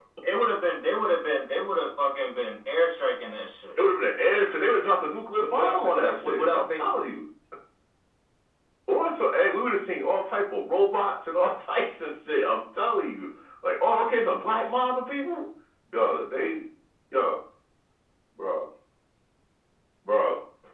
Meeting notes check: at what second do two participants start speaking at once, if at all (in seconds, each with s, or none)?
5.4 s